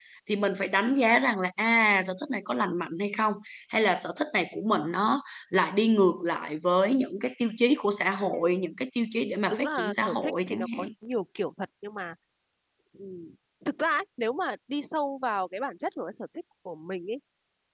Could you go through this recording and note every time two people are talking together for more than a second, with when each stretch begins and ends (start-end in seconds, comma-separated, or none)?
9.5-10.9